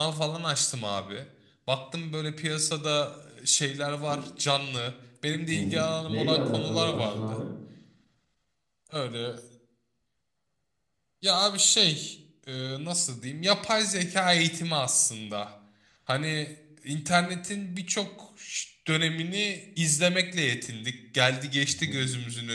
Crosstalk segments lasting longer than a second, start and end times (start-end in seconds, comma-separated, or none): 5.5-7.4